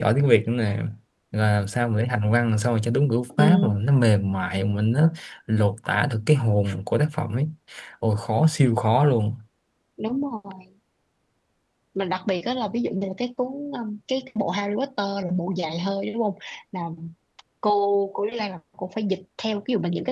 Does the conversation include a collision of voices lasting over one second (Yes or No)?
No